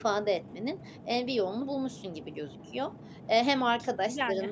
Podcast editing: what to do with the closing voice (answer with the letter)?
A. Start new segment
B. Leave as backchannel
B